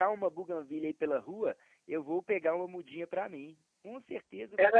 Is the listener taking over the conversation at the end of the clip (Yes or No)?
Yes